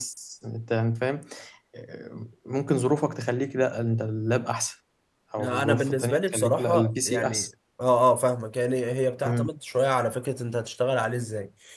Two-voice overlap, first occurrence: 5 s

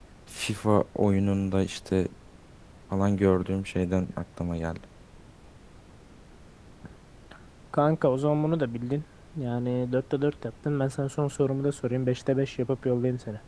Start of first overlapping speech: none

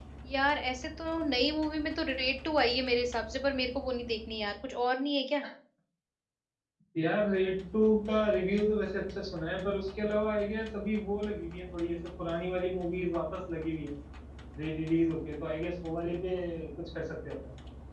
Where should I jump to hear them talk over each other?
none

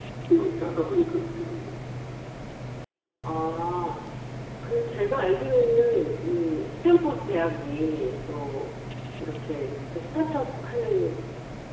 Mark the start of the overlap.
none

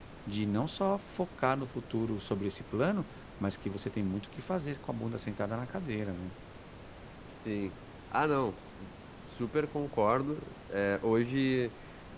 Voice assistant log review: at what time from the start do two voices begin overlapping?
none

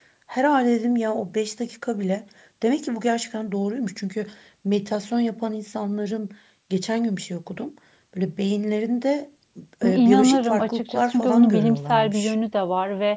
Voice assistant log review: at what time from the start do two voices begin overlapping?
10 s

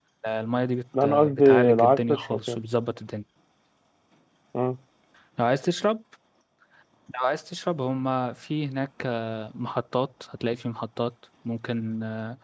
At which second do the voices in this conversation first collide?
1 s

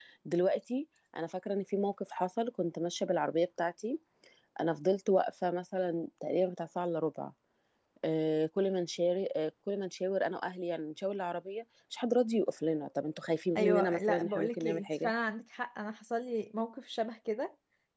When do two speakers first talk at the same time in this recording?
14 s

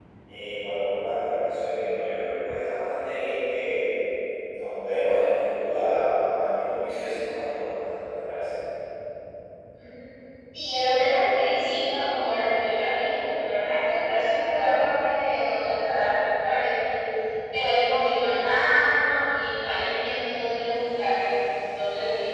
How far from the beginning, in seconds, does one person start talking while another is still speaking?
none

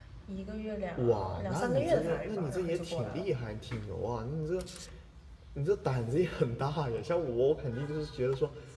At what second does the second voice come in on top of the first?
1 s

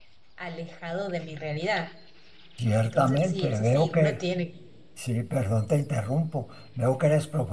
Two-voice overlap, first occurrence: 3 s

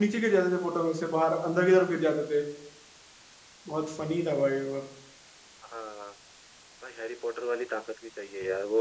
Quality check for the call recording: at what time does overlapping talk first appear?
none

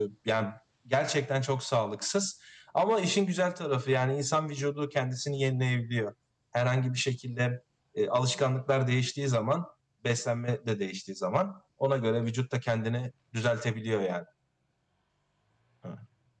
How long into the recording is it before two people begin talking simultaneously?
none

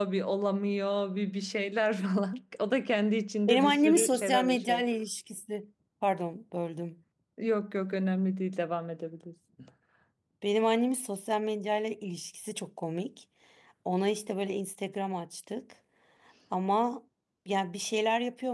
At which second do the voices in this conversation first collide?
3 s

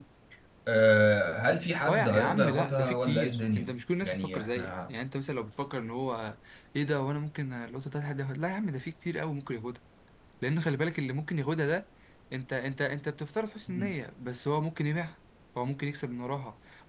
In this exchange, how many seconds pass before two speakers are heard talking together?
2 s

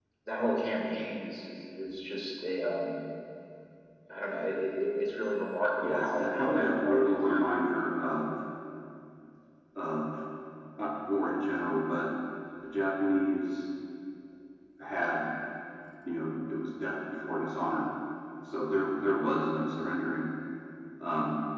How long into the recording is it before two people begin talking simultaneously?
6 s

